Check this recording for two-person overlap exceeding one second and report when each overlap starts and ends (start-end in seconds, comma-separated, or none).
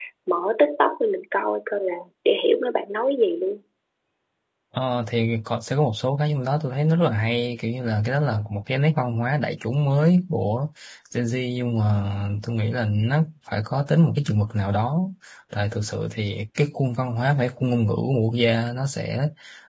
none